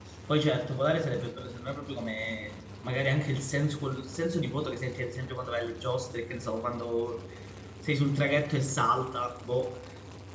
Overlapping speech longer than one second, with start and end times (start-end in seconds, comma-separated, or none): none